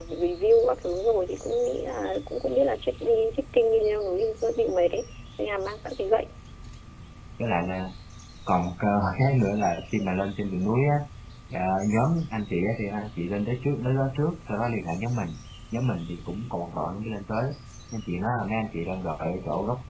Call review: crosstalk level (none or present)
none